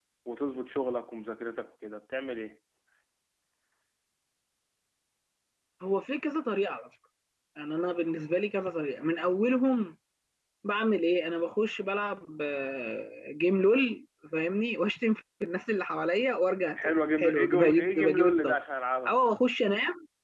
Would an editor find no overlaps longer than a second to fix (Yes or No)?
No